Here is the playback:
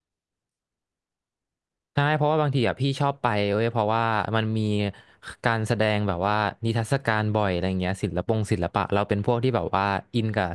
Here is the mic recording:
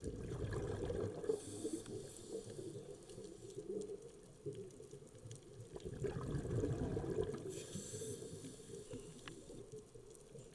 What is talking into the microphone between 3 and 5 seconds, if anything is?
neither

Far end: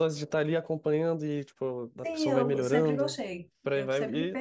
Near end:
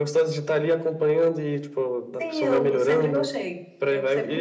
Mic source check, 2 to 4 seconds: echo only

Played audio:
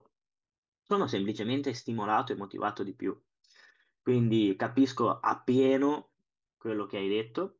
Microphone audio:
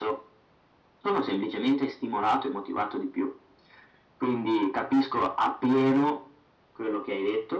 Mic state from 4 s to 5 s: echo only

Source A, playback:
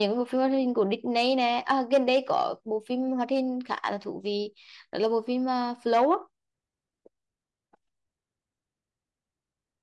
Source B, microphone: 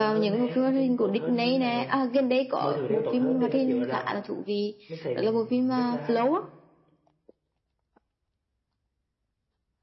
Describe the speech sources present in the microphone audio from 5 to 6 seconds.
both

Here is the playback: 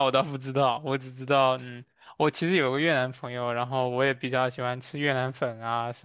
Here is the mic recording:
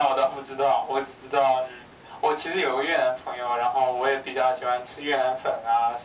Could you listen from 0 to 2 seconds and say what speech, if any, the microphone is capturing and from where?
echo only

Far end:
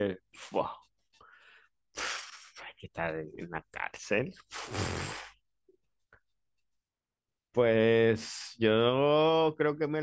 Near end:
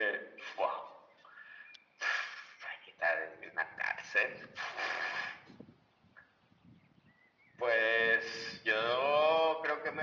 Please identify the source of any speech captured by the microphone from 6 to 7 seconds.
neither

